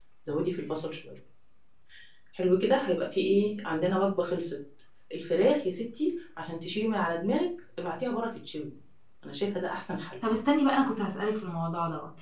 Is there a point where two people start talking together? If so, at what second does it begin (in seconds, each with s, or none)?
none